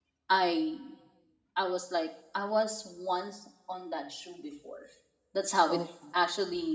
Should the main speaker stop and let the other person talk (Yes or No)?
No